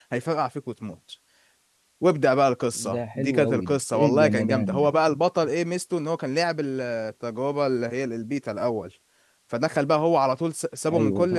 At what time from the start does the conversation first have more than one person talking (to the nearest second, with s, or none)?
3 s